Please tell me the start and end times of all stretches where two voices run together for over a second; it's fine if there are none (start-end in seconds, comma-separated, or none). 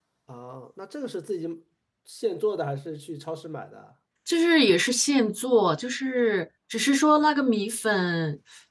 none